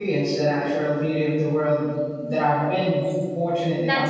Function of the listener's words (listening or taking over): taking over